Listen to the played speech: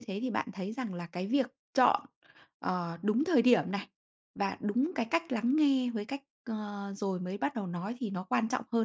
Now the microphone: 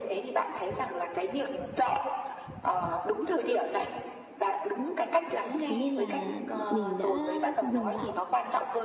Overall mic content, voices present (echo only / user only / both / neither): both